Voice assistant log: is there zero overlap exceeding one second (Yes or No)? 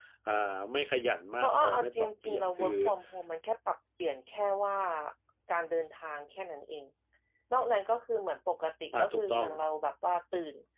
No